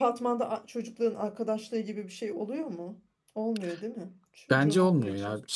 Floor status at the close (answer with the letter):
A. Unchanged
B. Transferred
B